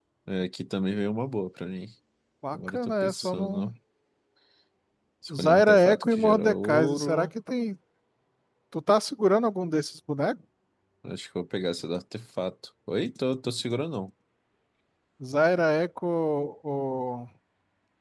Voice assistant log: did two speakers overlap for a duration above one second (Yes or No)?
Yes